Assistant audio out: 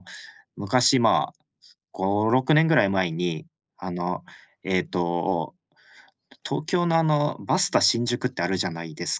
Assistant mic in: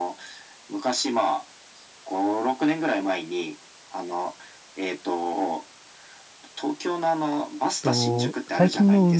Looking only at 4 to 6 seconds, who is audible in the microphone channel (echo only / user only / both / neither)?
echo only